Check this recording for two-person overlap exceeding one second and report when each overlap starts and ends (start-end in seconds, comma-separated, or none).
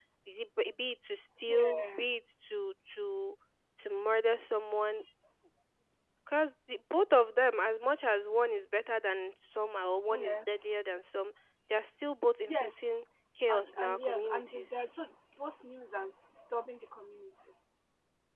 13.5-14.7